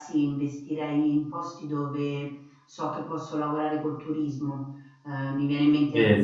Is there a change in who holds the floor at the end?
No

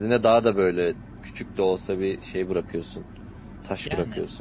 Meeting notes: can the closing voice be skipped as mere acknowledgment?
No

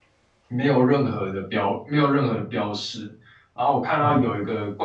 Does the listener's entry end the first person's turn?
No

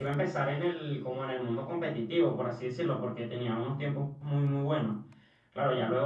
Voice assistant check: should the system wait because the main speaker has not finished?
Yes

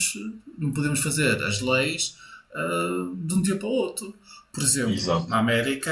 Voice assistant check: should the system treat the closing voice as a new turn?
No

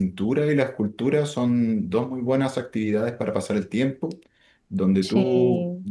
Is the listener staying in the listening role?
Yes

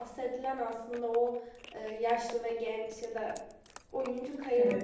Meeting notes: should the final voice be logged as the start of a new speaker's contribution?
No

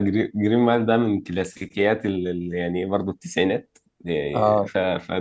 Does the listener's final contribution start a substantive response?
No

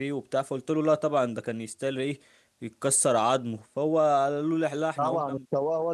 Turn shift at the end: Yes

